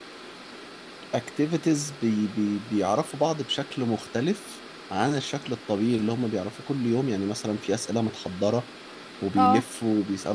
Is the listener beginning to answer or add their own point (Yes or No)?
No